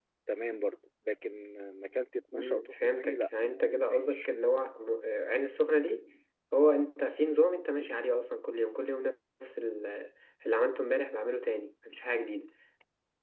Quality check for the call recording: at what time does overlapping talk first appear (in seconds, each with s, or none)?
2.3 s